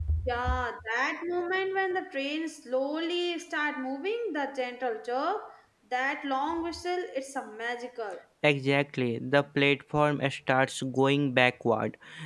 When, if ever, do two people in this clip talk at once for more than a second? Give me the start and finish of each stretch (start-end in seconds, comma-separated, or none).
none